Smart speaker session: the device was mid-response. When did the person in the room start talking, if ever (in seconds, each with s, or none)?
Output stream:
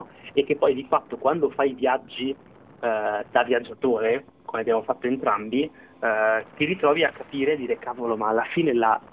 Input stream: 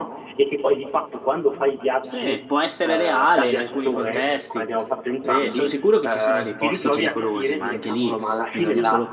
2.0 s